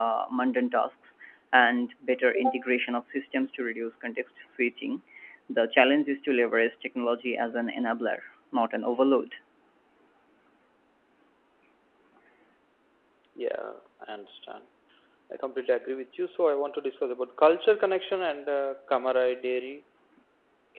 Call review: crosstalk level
none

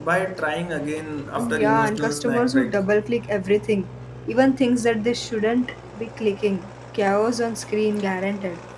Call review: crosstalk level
present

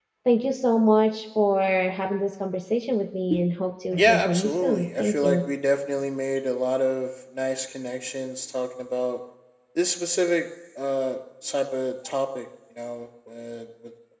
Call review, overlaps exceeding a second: present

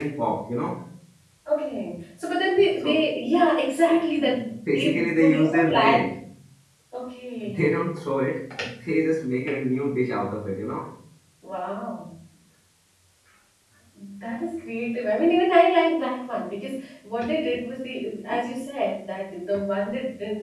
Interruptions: present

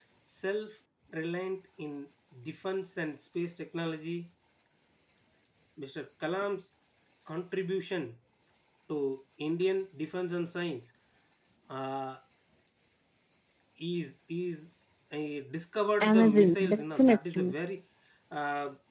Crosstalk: present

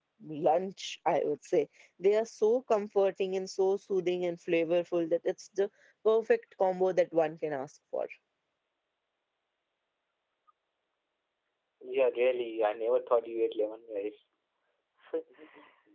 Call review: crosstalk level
none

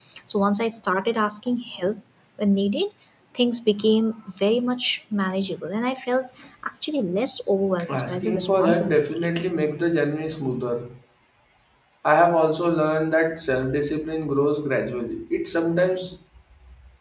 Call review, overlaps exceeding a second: present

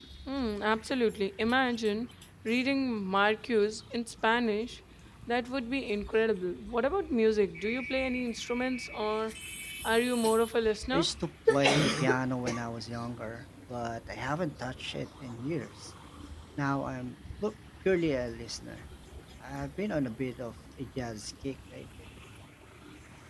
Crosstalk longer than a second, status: none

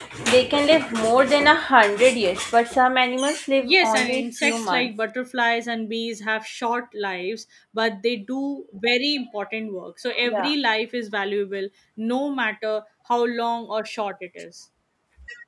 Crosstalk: present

